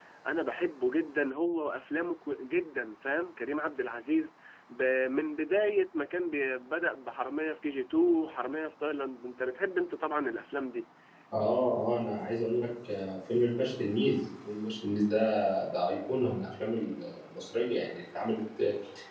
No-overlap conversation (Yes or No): Yes